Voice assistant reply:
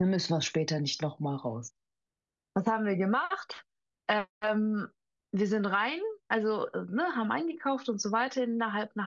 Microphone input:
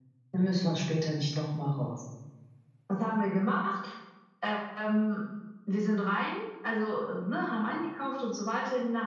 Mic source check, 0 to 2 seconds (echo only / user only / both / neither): echo only